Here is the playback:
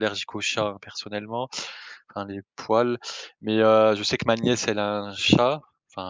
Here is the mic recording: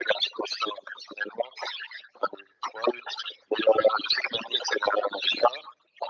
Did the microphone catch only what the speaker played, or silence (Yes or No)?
Yes